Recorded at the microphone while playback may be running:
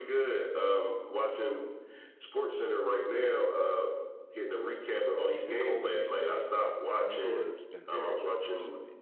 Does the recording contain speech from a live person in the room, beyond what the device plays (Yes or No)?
Yes